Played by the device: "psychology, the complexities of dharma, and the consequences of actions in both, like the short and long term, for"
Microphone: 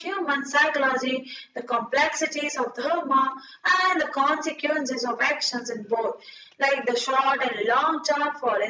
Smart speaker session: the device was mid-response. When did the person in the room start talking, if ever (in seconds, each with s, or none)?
none